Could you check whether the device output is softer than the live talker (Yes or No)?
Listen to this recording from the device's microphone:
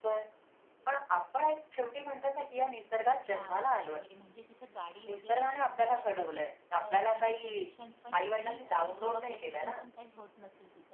No